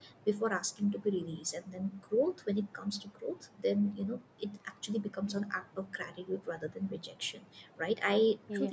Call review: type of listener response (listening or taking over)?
listening